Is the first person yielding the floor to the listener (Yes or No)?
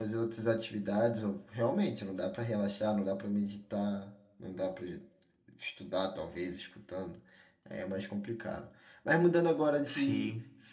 No